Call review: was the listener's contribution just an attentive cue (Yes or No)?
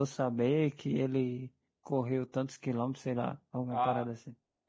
No